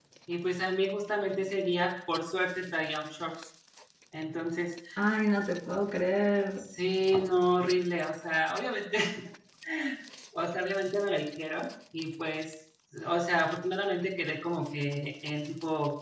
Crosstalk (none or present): none